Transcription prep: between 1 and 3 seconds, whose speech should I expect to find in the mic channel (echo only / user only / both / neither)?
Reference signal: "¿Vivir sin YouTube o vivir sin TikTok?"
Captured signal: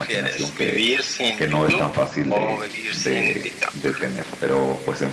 both